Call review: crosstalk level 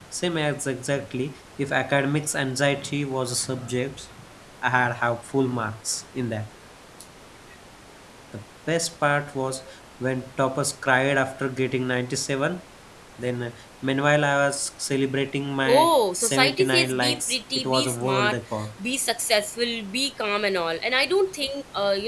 present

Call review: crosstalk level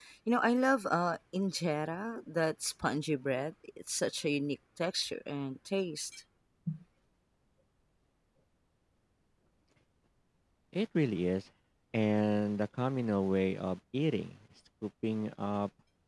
none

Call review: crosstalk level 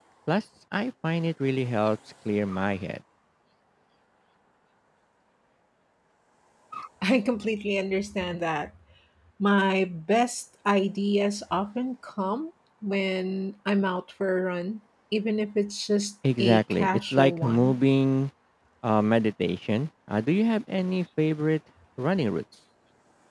present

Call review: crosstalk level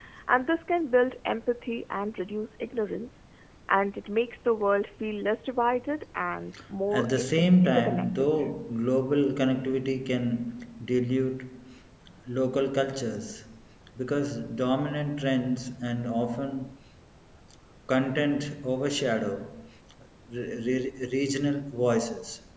present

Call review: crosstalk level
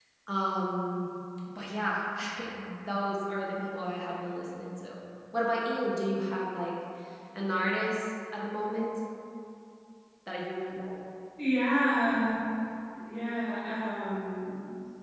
none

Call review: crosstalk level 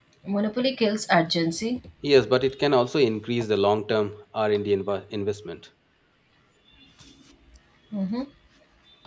none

